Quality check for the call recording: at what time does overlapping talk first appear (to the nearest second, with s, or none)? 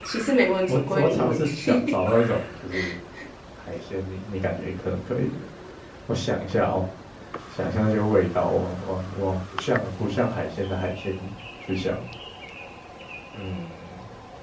1 s